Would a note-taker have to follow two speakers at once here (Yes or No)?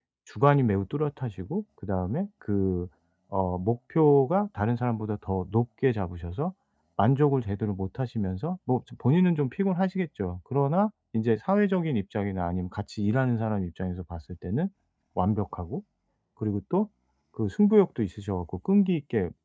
No